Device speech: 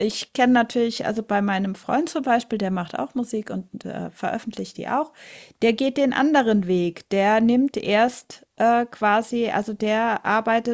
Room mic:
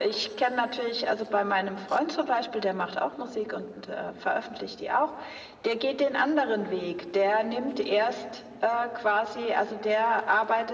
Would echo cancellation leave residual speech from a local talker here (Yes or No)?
No